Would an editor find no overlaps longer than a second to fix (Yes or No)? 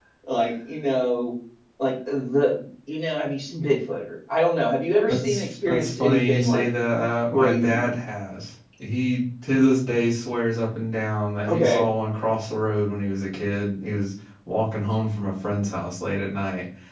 No